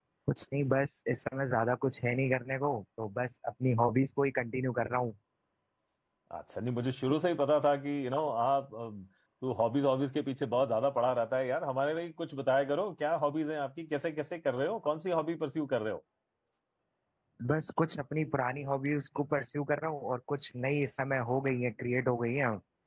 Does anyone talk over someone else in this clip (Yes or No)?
No